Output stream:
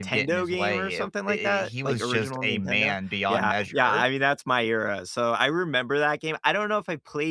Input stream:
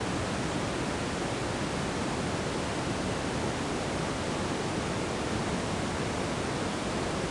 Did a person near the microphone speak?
No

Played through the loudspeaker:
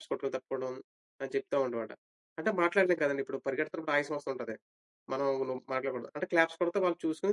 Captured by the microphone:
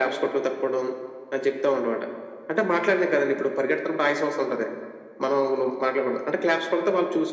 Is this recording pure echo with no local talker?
Yes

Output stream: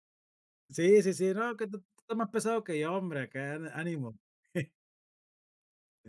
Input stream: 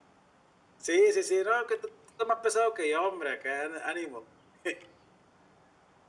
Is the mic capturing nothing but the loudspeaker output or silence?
Yes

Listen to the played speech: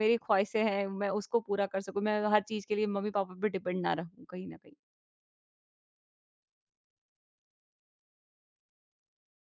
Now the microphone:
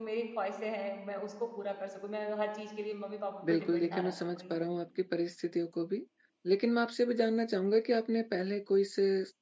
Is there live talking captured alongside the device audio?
Yes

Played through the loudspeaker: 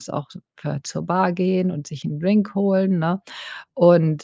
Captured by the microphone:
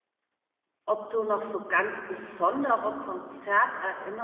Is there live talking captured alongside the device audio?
Yes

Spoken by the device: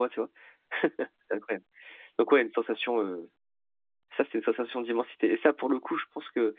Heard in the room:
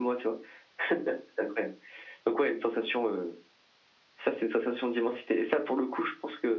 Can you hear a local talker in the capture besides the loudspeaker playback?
No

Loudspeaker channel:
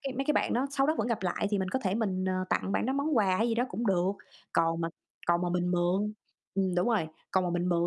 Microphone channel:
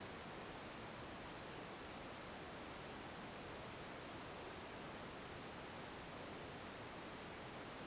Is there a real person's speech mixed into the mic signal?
No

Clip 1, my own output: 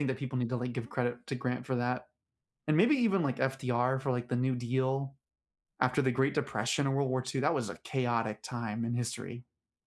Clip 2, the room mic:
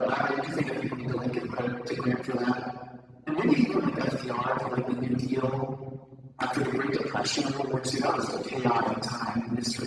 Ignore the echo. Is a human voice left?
No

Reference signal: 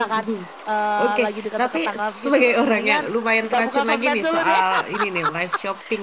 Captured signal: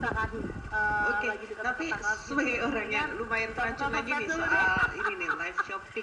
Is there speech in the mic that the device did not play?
No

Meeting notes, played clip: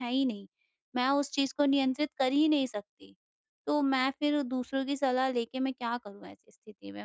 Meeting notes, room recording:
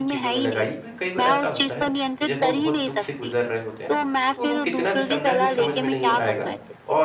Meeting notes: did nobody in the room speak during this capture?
No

